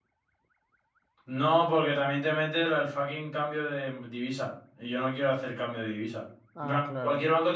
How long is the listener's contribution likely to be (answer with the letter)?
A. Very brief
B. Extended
A